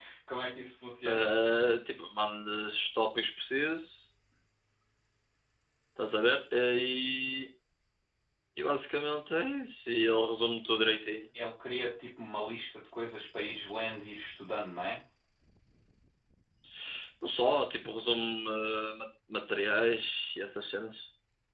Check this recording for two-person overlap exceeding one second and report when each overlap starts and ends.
none

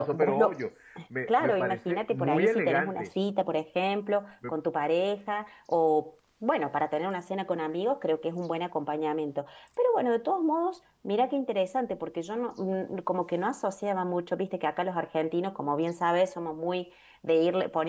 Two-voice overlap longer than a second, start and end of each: 1.3-3.1

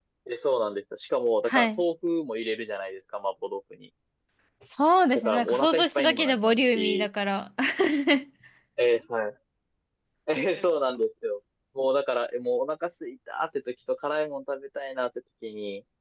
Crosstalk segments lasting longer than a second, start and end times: 5.1-7.1

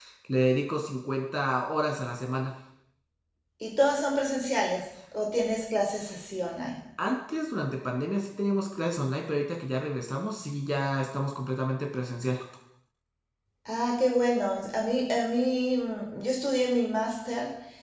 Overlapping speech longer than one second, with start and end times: none

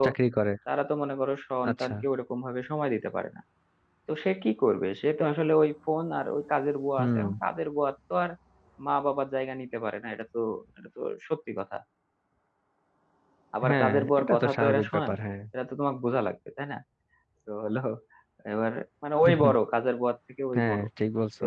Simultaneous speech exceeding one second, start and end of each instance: 13.7-15.2

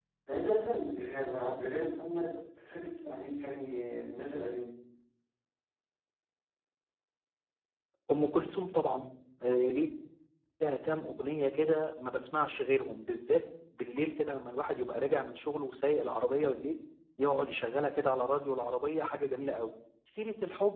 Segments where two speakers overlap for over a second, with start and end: none

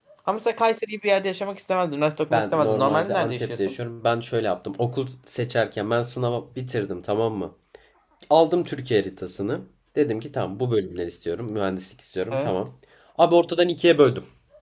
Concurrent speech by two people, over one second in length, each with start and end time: 2.3-3.8

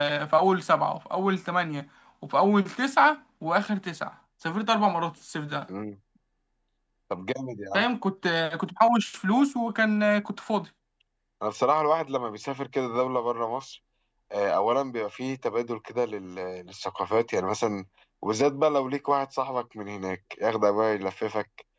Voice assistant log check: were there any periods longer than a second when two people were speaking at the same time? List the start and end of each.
none

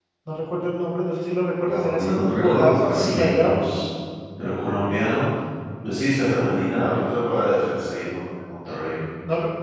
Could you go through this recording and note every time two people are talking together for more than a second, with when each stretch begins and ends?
1.6-3.7

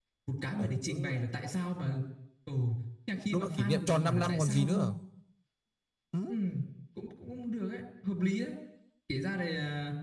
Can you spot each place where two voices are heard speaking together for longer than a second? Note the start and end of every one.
3.3-4.9

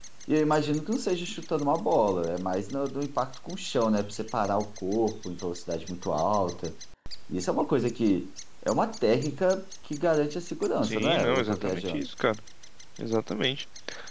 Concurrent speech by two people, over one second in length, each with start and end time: 10.8-12.1

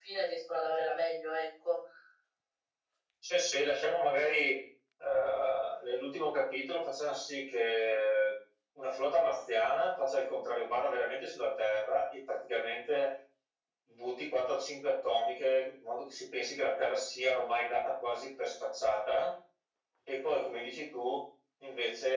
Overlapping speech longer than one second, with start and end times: none

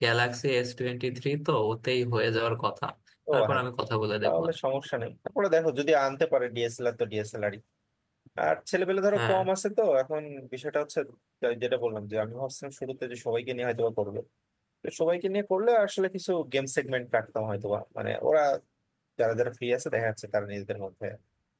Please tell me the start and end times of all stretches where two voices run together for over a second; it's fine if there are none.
none

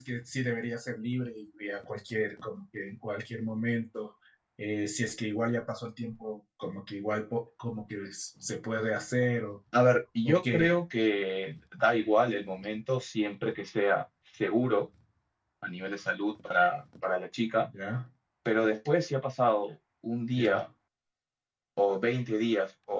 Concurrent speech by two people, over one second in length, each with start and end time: none

